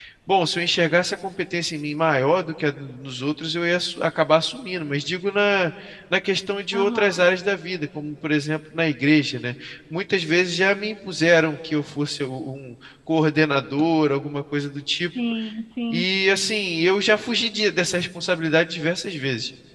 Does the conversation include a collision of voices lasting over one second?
No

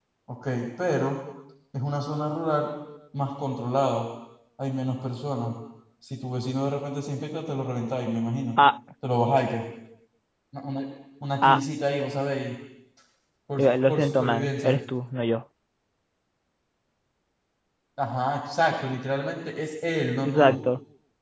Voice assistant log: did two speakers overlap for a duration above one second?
Yes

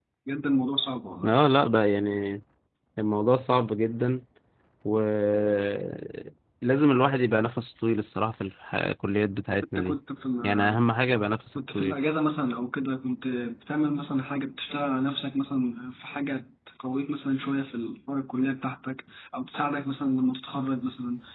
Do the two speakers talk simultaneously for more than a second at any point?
No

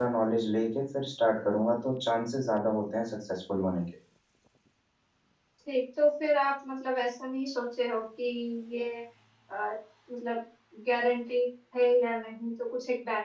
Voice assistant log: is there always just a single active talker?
Yes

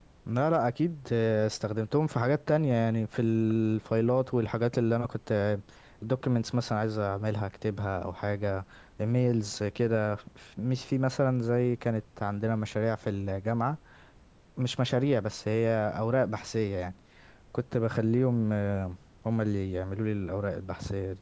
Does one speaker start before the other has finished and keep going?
No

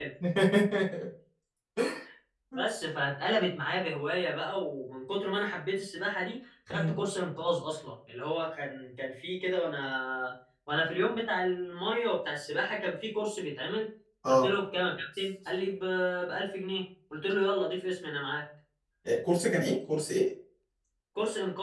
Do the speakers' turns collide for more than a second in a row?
No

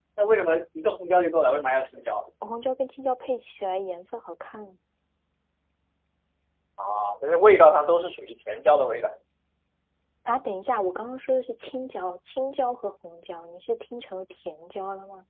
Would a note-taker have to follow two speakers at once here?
No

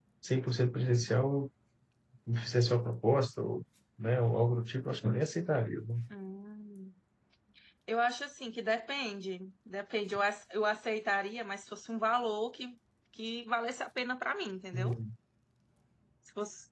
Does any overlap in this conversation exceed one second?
No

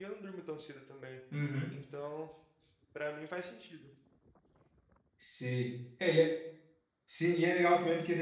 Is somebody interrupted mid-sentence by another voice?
No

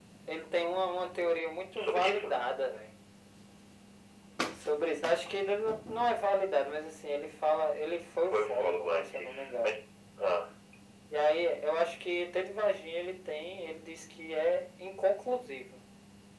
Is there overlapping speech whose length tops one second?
Yes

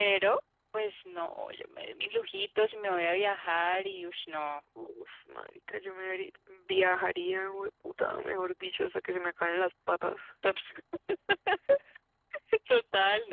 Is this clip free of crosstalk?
Yes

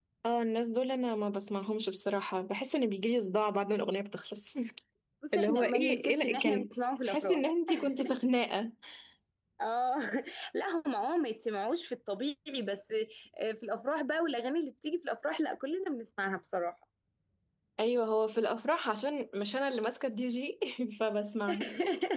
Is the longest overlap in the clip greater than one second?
Yes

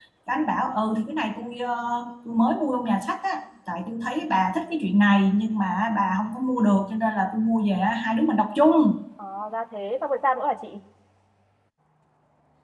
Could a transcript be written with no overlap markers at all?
Yes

